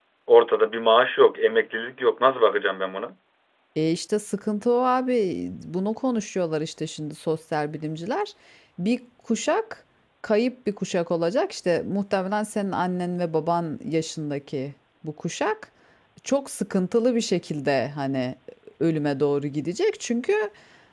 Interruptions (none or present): none